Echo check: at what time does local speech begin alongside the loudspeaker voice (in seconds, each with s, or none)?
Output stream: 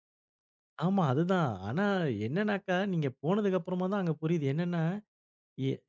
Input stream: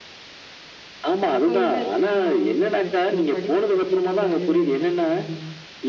1.3 s